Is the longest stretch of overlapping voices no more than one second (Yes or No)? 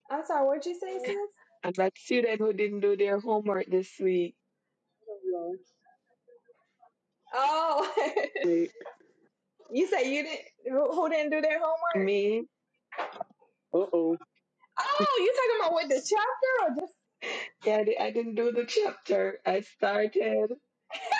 Yes